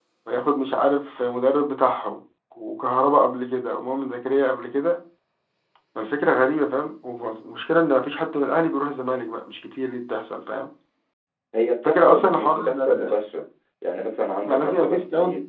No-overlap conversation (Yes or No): No